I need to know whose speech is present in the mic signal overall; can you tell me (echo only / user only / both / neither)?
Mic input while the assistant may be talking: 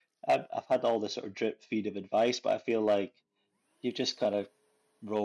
user only